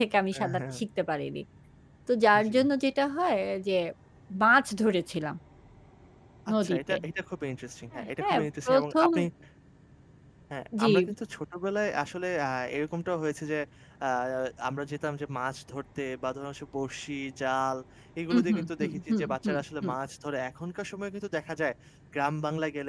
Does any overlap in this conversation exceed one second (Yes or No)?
Yes